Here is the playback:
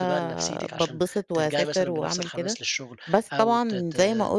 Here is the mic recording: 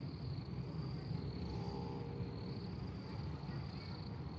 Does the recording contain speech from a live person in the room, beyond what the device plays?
No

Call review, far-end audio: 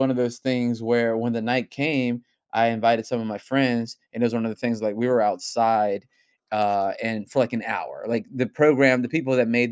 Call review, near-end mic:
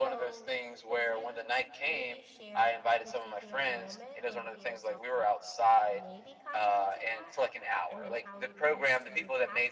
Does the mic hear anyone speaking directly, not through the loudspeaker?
Yes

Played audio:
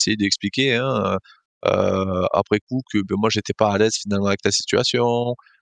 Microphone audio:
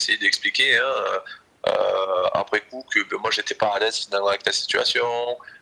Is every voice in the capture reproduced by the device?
Yes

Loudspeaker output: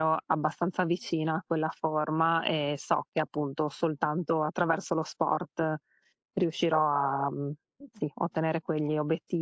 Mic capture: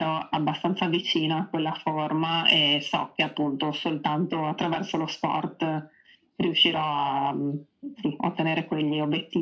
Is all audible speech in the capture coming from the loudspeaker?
Yes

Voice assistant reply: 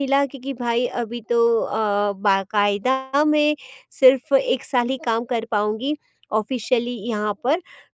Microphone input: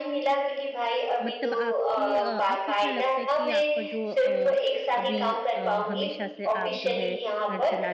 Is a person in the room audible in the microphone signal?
Yes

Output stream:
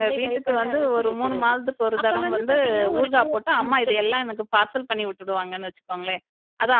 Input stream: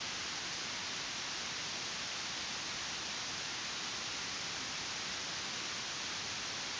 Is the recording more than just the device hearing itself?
No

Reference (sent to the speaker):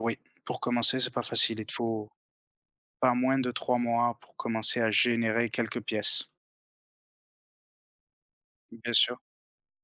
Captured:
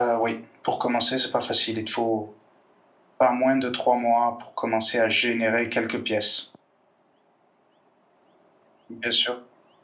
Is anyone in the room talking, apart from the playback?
No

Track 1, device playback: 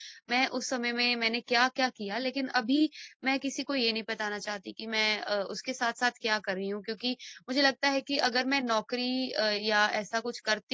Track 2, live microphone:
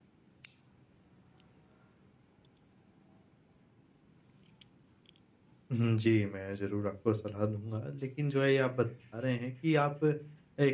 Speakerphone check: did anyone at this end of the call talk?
Yes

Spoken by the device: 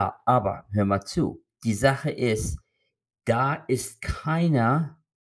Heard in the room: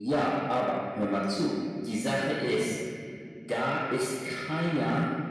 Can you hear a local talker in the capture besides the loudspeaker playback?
No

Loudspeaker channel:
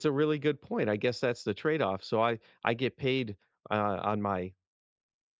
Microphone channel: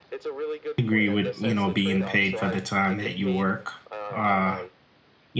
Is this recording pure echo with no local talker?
No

